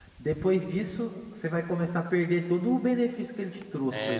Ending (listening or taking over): taking over